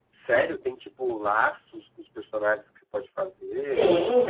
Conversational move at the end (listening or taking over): taking over